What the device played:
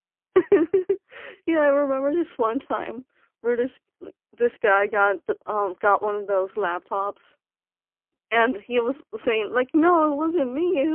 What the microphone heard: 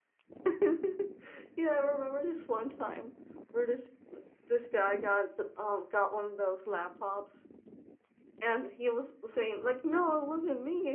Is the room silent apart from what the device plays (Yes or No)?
Yes